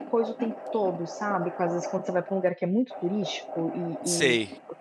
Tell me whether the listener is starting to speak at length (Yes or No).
No